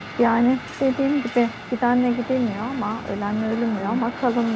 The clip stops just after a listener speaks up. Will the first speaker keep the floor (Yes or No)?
Yes